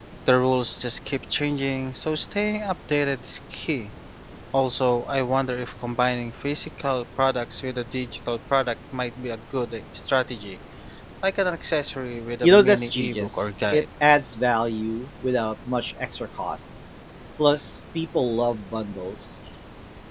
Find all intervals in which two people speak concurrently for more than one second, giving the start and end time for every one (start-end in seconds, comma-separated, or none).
12.4-13.8